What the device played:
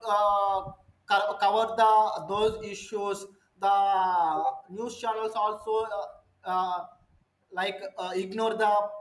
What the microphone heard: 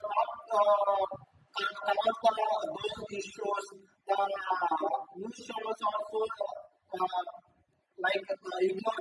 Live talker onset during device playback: none

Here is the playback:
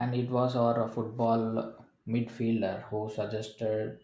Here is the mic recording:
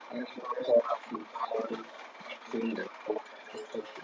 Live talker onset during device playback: none

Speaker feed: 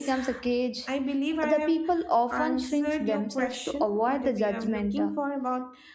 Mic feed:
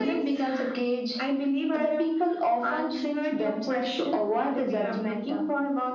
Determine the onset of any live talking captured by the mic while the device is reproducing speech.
none

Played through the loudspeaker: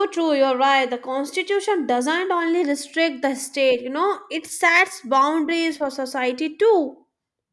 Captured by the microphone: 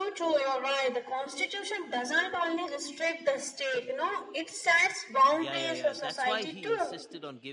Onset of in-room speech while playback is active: 5.3 s

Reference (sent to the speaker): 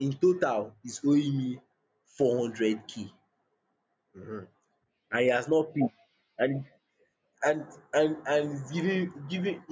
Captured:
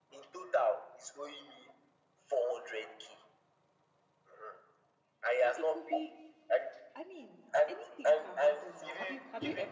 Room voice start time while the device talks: 5.4 s

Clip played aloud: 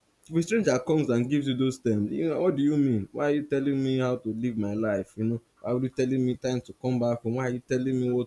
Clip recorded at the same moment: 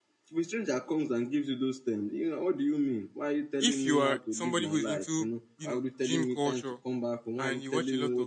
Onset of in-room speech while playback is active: 3.6 s

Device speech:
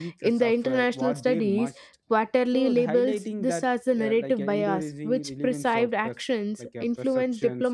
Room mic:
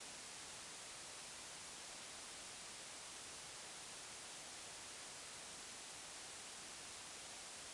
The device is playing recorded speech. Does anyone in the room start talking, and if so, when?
none

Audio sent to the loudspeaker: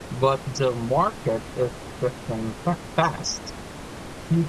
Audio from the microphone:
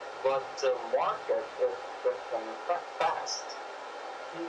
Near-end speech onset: none

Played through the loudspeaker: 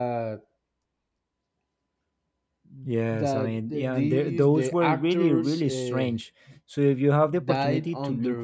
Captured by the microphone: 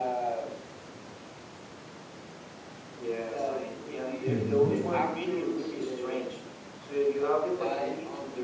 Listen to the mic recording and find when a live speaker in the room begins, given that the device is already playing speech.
4.2 s

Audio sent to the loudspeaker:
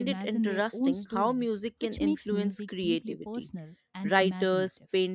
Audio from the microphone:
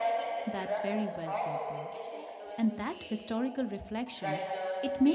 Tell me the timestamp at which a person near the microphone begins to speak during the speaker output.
0.5 s

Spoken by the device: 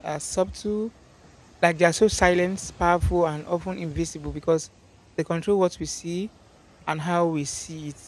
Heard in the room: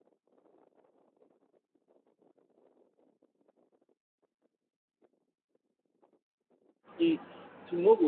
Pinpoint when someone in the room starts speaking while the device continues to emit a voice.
7.0 s

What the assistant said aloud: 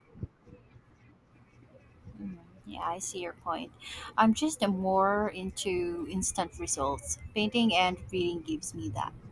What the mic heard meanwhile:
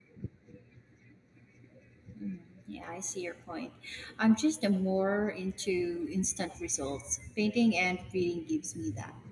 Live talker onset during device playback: none

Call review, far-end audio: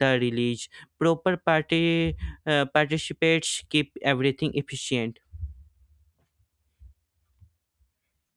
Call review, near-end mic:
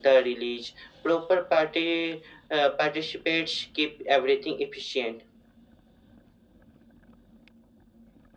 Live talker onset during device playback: none

